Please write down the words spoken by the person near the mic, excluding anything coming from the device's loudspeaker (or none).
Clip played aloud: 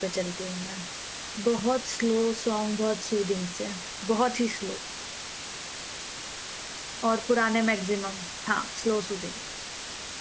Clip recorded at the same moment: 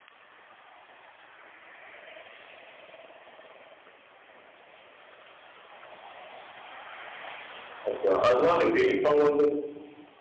अच्छा अ, तुम्हारा फेवरेट सॉन्ग कौन सा